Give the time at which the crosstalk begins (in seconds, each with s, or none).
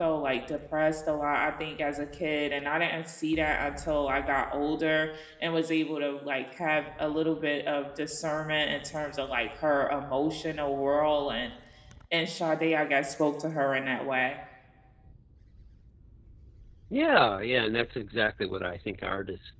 none